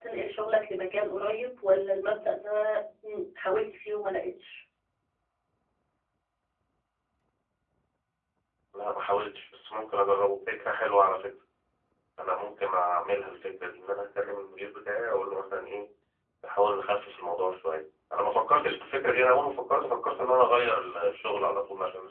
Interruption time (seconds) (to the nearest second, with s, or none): none